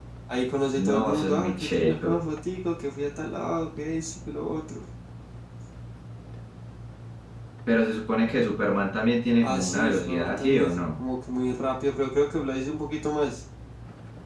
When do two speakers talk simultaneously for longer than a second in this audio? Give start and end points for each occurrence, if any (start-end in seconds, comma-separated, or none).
0.8-2.2, 9.4-11.0